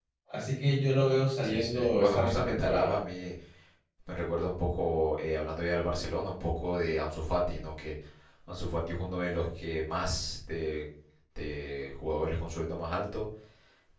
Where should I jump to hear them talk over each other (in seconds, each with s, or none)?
1.4 s